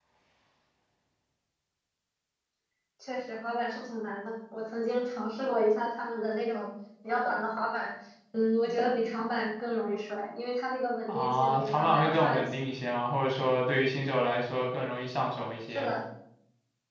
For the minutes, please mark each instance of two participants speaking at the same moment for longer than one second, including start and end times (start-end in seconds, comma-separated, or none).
11.1-12.6